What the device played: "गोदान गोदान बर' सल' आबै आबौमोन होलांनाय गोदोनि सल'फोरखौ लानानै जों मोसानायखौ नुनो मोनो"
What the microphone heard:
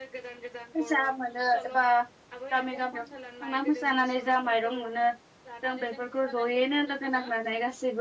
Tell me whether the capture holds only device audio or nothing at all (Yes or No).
No